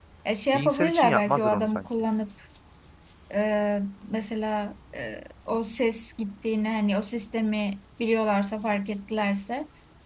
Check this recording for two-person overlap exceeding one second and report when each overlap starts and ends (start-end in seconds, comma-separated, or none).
0.5-1.8